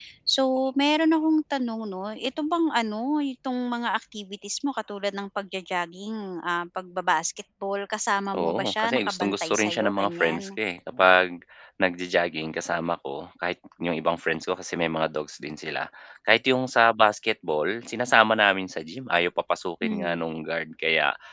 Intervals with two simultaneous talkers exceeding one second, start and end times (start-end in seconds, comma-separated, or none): 8.3-10.5